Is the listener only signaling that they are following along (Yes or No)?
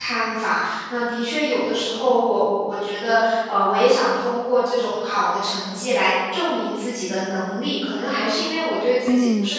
Yes